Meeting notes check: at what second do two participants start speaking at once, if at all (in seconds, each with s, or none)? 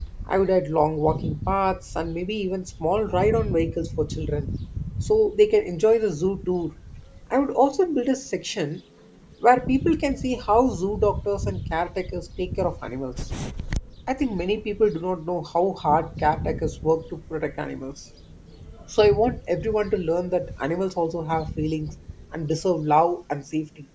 none